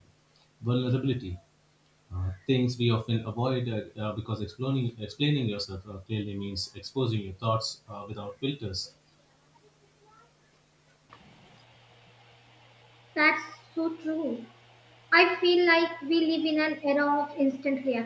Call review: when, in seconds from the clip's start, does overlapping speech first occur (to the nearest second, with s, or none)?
none